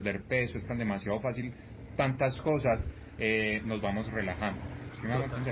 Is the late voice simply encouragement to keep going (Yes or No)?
No